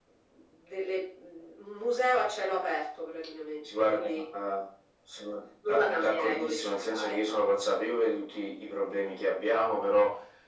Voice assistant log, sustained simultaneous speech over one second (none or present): present